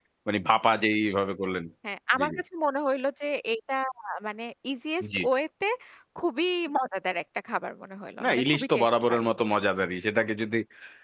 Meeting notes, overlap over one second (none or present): present